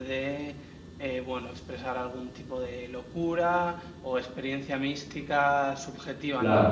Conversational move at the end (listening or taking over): listening